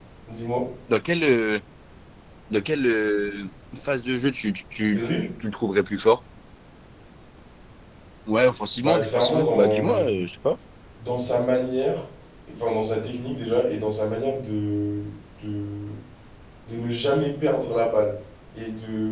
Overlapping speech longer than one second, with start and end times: 8.8-10.1

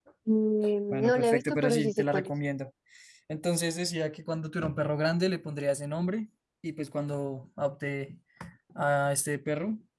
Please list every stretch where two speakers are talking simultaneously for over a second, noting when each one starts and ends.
0.9-2.3

